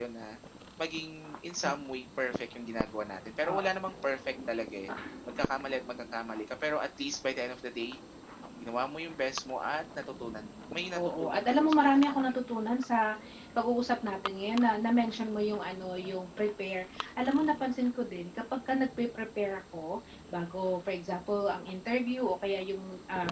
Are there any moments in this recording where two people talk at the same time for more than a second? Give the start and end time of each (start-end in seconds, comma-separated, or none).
10.9-12.3